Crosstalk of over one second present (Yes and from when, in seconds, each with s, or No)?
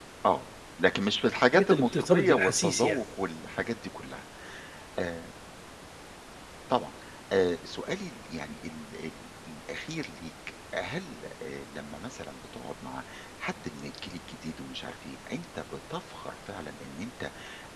Yes, from 1.5 s